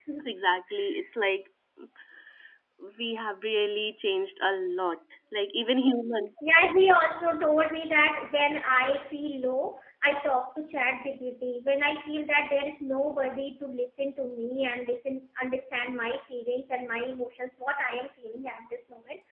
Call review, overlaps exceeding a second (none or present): none